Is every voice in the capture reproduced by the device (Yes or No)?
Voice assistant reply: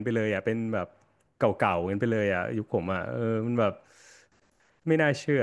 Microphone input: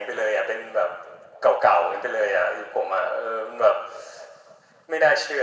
Yes